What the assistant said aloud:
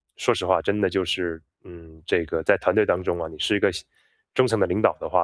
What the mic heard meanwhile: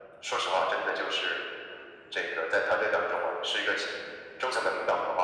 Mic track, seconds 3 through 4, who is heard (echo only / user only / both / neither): echo only